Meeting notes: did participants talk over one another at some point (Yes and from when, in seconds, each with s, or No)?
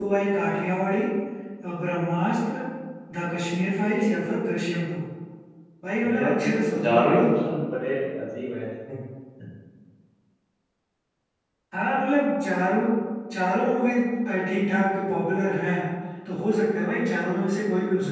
Yes, from 6.1 s